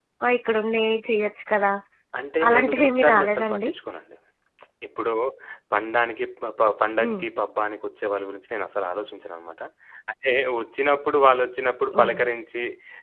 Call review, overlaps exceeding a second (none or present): present